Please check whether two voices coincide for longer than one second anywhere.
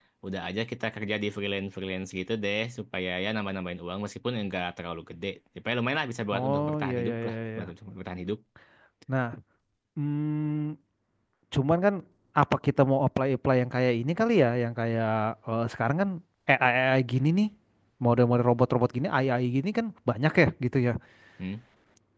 Yes, from 6.3 s

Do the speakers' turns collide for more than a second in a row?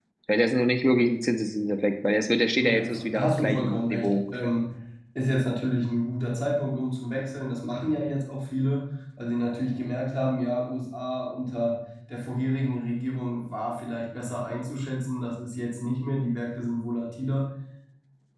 Yes, from 2.6 s

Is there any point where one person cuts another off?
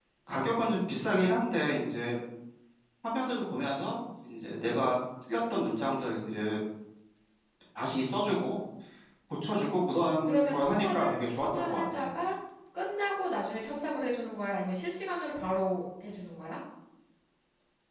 Yes, from 10.2 s

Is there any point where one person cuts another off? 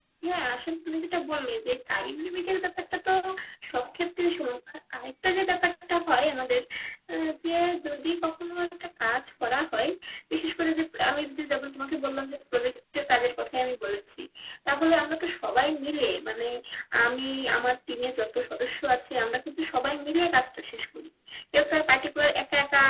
No

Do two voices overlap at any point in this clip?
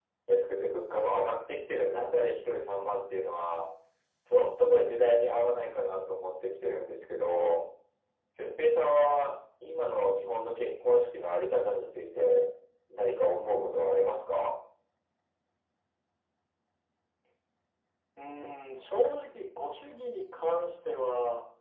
No

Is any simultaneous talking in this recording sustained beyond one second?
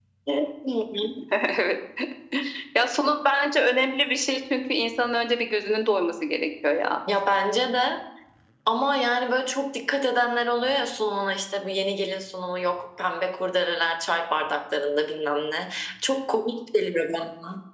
No

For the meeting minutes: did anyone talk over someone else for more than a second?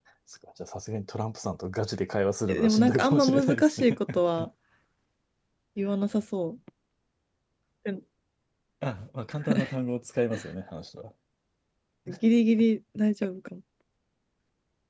Yes, from 2.5 s

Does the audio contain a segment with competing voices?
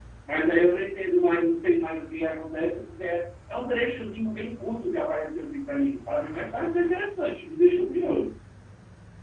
No

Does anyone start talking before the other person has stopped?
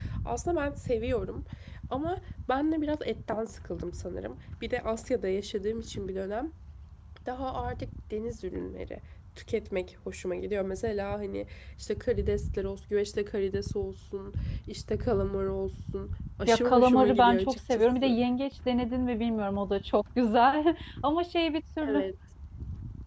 Yes, from 16.5 s

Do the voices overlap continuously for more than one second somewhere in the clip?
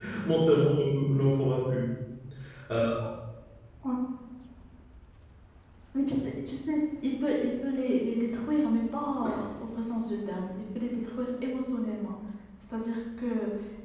No

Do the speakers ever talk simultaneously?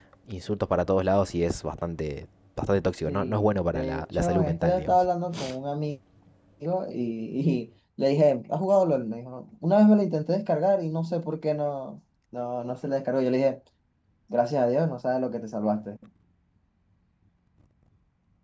Yes, from 3.1 s

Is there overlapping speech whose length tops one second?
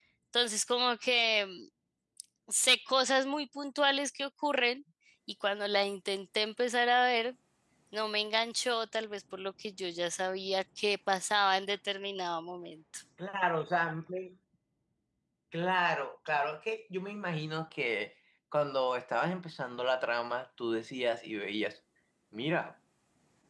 No

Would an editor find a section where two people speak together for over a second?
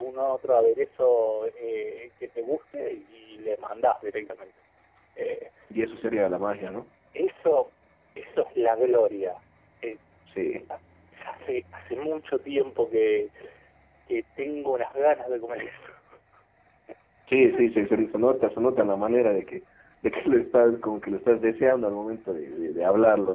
No

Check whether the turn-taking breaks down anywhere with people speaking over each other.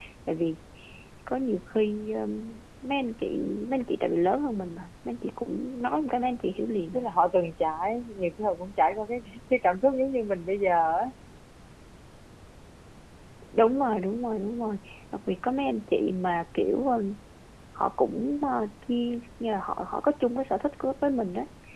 No

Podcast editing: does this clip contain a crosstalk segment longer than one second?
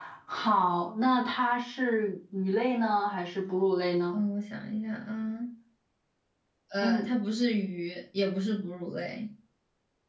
No

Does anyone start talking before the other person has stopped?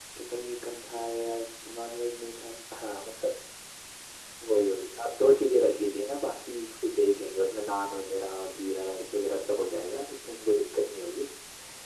No

